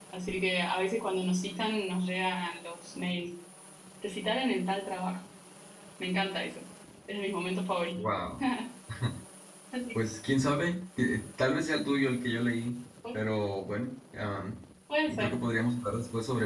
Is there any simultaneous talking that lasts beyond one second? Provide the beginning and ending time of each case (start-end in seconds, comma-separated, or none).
none